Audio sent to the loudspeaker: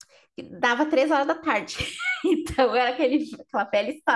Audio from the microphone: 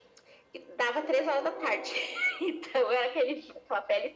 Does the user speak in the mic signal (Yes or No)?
No